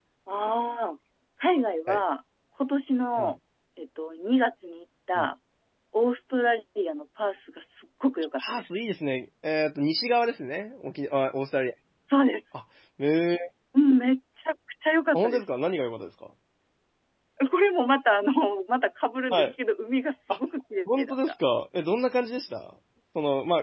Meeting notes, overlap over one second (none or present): none